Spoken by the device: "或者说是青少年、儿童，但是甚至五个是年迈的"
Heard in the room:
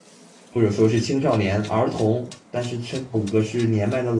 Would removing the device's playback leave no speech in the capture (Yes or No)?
Yes